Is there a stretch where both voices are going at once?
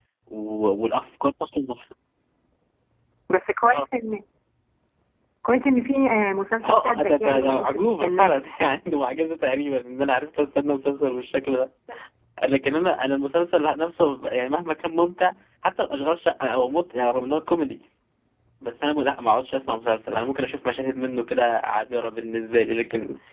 Yes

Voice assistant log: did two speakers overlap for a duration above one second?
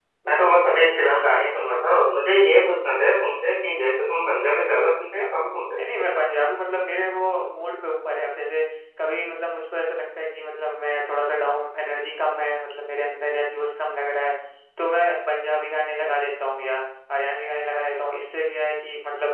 No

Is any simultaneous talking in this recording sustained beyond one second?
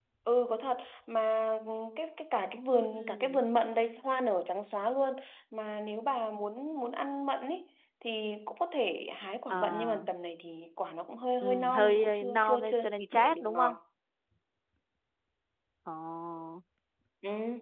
Yes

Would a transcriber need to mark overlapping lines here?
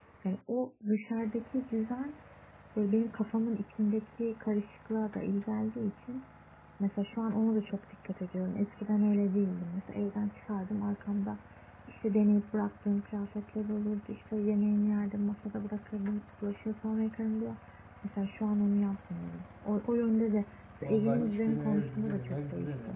Yes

